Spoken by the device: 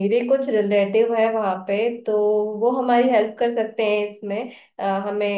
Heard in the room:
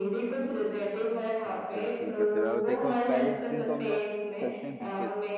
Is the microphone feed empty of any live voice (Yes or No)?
No